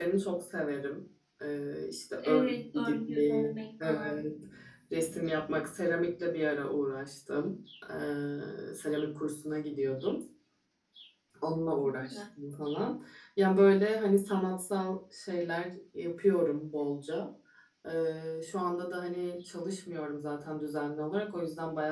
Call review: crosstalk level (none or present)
present